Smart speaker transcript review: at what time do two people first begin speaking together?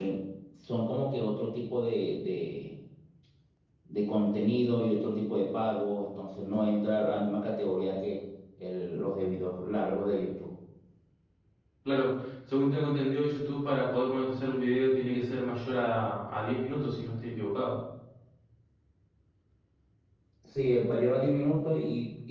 none

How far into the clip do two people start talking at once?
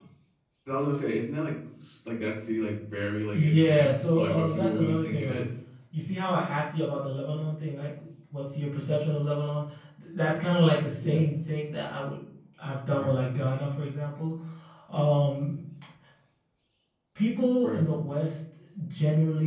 3.3 s

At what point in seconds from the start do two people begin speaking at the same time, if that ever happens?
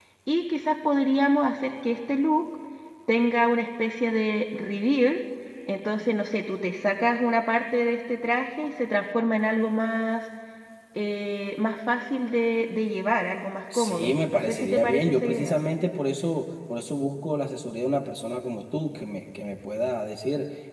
13.7 s

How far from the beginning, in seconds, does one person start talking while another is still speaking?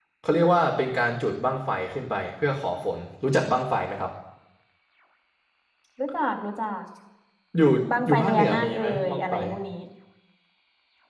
8.1 s

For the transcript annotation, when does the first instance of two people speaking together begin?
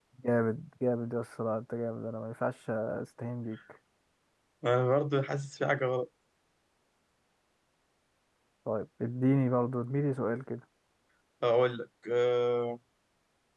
none

